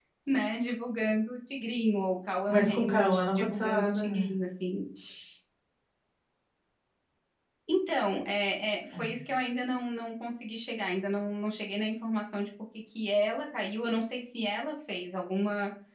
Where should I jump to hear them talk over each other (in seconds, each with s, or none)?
2.5 s